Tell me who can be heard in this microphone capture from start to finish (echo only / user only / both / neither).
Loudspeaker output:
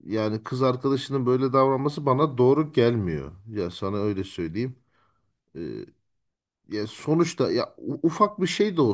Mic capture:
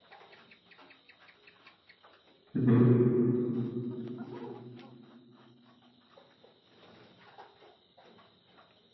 user only